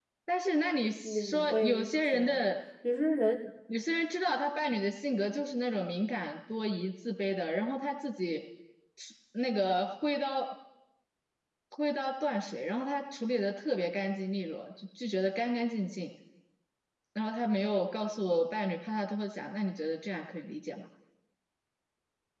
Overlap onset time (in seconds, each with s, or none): 1.0 s